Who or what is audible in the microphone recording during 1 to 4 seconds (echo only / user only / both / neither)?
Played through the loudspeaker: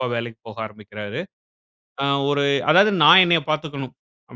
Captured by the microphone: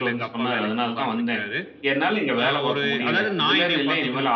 both